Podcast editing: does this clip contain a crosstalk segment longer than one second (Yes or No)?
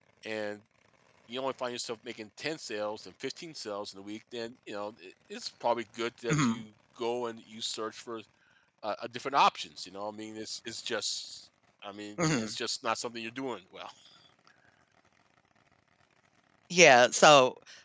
No